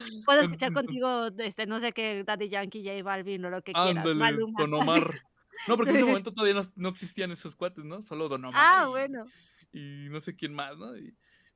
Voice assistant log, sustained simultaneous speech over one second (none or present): present